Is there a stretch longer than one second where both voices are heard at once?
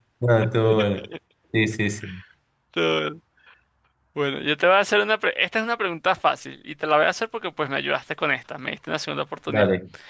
No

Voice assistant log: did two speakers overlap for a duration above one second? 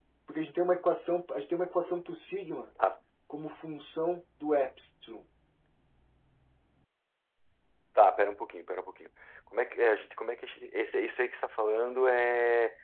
No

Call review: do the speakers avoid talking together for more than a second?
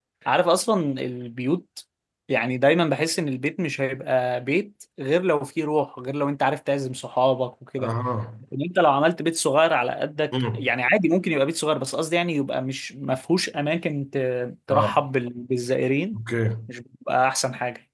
Yes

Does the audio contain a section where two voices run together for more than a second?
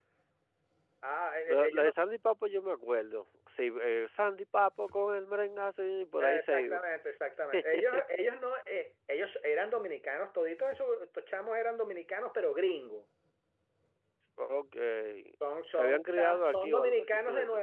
Yes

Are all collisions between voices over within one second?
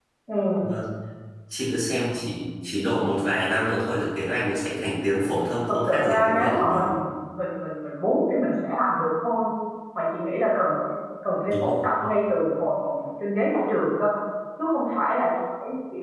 No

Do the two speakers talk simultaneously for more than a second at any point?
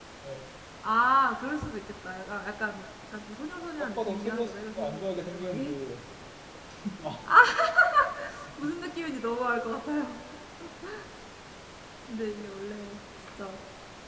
Yes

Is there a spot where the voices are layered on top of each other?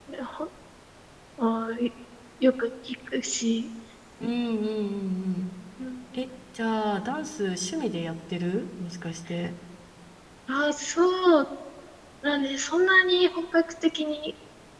No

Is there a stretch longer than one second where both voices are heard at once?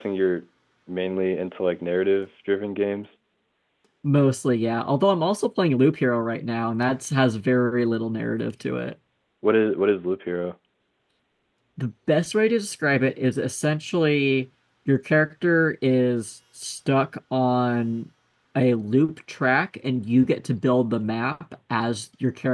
No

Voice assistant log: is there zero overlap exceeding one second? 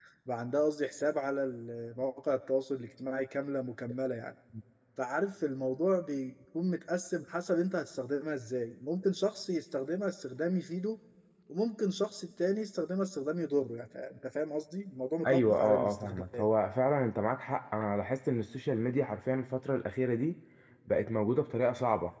No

